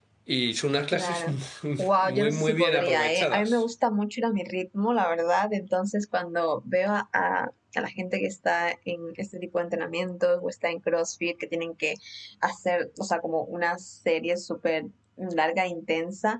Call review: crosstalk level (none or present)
present